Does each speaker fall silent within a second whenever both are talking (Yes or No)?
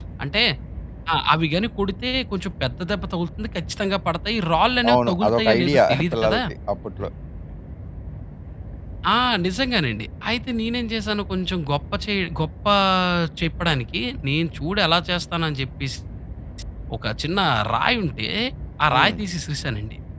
No